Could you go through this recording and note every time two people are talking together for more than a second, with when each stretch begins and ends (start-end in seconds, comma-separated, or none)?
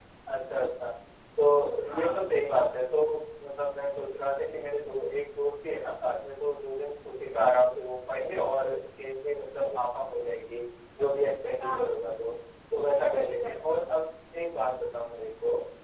none